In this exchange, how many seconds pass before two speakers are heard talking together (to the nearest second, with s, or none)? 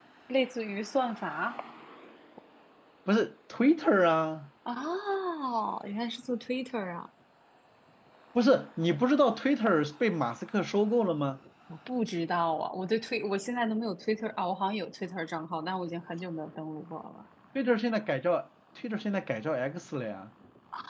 none